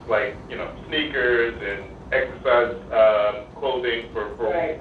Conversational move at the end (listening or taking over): listening